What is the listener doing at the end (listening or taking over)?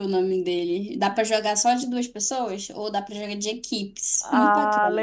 taking over